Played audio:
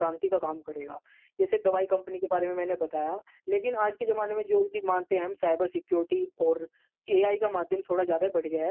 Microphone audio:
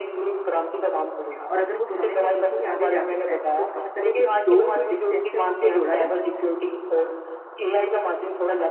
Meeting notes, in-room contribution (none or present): present